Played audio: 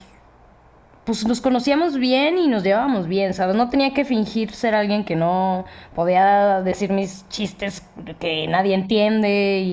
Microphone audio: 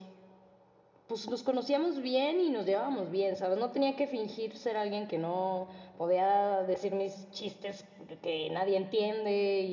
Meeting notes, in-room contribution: none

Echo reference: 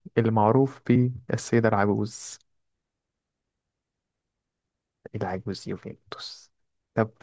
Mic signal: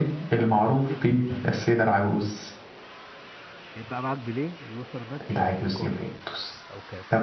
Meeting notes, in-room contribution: present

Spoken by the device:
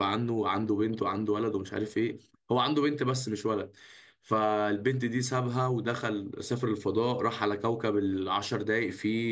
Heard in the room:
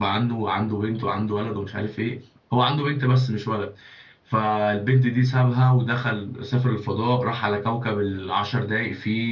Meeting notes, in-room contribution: none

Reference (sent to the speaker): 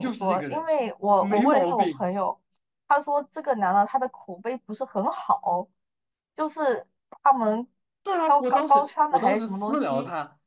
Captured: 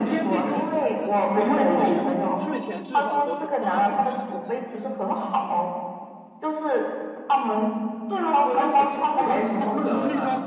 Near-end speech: present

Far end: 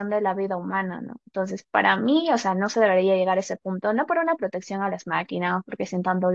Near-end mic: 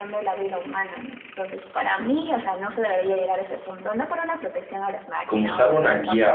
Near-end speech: present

